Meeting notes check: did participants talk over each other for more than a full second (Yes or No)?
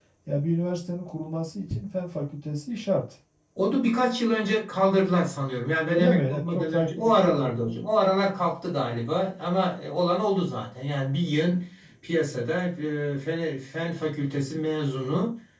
Yes